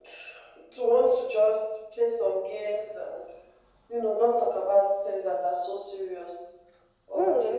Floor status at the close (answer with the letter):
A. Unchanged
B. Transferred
B